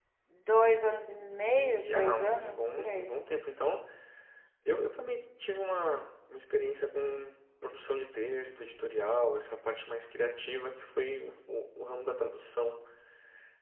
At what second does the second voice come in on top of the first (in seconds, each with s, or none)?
1.2 s